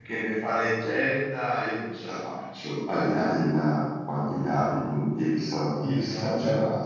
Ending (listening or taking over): taking over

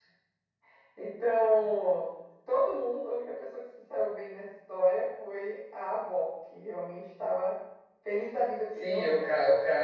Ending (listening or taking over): taking over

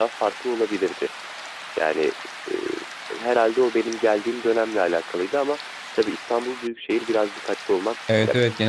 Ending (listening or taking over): taking over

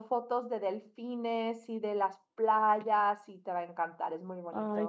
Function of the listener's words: taking over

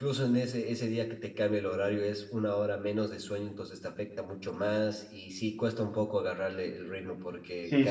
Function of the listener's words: taking over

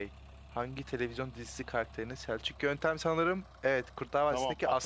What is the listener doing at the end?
taking over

